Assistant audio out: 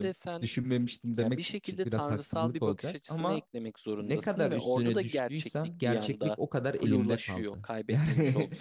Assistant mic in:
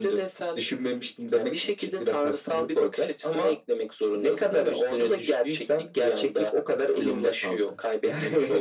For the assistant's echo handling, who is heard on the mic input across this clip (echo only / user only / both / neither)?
echo only